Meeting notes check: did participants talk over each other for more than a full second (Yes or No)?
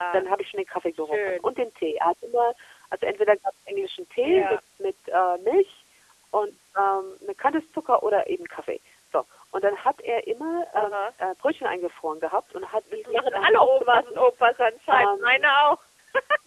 Yes